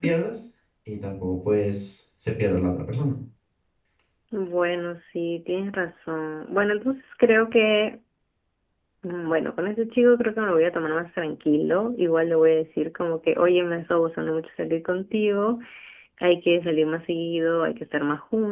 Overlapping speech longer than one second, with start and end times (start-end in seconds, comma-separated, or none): none